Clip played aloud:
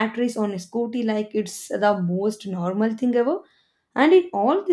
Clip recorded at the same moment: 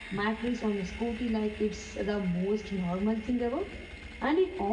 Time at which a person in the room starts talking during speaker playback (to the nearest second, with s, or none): none